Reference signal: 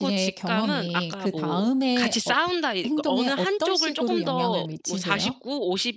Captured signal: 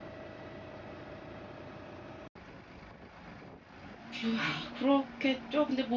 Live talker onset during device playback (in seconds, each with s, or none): 4.2 s